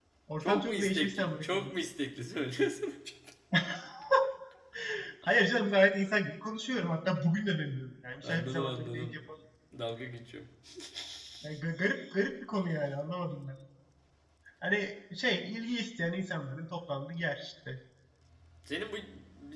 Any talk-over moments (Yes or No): Yes